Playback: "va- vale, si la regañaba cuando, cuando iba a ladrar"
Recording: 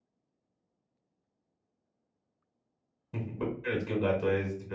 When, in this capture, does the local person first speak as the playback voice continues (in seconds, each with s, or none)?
3.1 s